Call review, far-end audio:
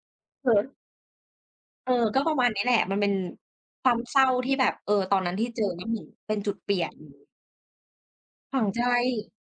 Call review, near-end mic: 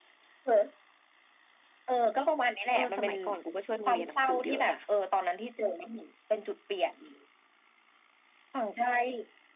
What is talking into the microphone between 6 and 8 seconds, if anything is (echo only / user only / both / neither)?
echo only